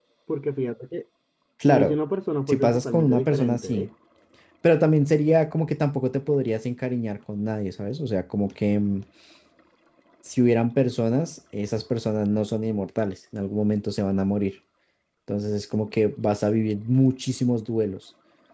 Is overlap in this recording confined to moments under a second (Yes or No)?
No